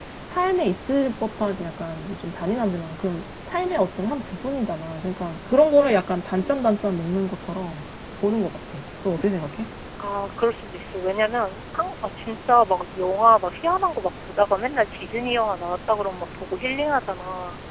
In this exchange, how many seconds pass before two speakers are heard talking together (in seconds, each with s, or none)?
none